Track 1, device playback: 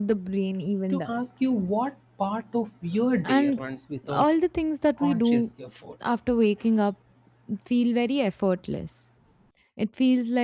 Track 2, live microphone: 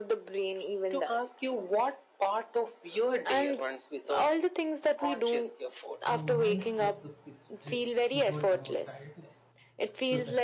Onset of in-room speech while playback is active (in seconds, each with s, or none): 6.0 s